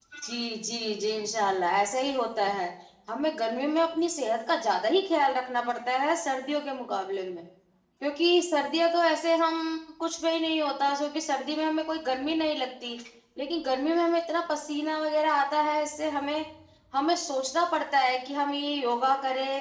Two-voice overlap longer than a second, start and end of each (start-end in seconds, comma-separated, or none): none